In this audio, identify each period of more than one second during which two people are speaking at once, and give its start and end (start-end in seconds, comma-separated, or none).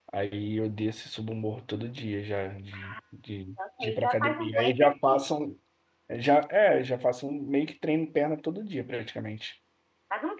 3.8-5.2